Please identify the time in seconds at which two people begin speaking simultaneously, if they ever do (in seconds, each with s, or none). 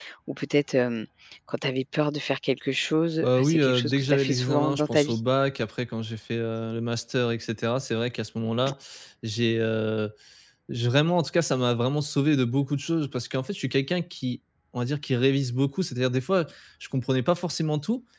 3.2 s